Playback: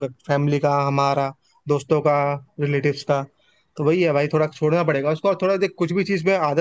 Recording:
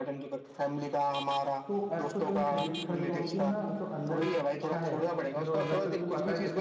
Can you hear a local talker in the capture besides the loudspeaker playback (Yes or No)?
Yes